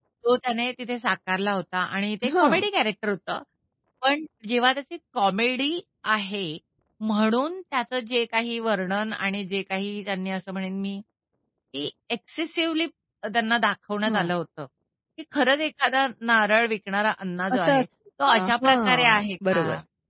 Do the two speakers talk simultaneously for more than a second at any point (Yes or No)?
Yes